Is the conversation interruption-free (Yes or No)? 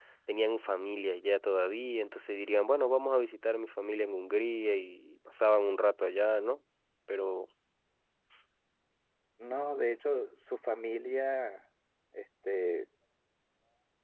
Yes